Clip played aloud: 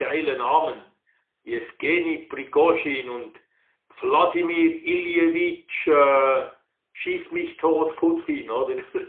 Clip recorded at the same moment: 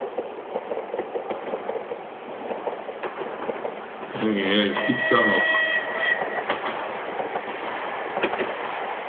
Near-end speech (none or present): present